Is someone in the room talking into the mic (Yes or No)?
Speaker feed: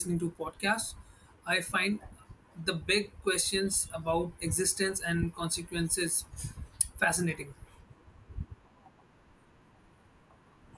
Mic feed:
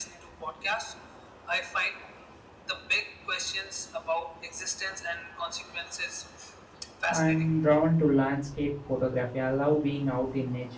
Yes